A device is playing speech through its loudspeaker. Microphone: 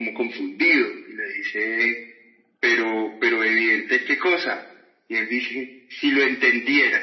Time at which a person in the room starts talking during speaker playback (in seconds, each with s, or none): none